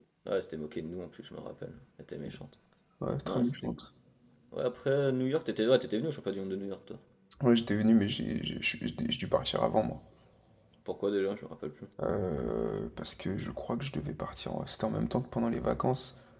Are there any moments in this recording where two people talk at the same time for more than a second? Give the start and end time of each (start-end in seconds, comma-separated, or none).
none